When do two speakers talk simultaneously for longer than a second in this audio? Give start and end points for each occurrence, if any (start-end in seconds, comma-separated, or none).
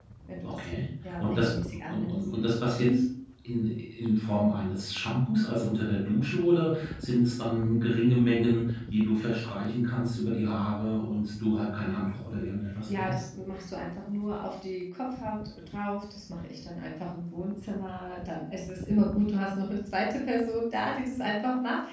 1.0-2.2